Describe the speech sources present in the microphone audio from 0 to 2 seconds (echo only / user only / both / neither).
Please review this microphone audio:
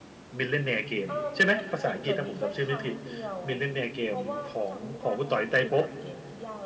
both